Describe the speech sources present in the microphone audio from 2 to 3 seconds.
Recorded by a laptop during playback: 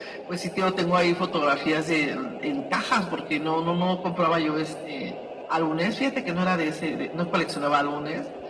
echo only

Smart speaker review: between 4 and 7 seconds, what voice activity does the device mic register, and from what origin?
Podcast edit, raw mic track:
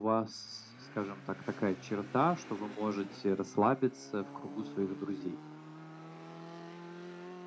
echo only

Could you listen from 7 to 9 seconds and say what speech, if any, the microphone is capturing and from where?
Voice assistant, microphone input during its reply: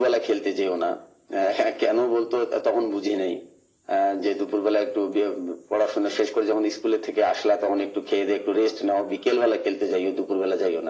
echo only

